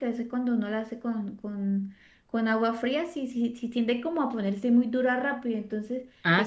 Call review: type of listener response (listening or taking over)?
listening